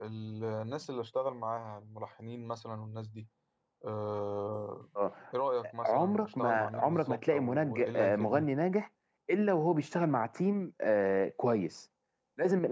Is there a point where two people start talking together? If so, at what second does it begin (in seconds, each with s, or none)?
5.8 s